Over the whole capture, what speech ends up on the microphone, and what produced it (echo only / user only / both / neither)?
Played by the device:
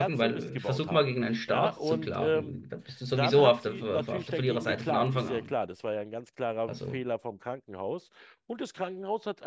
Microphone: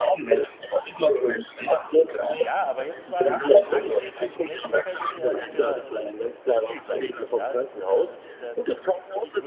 both